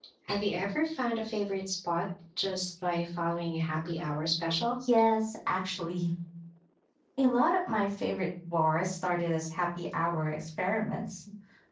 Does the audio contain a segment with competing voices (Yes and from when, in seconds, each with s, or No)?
No